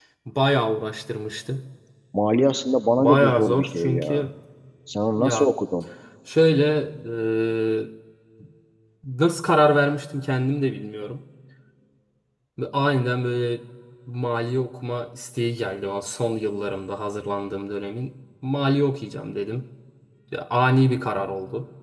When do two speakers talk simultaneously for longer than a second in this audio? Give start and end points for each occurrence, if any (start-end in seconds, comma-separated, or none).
3.0-4.3